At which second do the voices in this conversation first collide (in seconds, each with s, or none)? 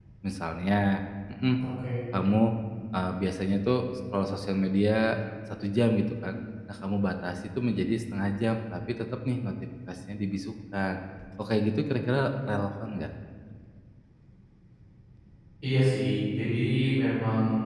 none